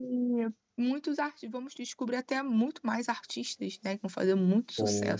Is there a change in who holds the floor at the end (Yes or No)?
Yes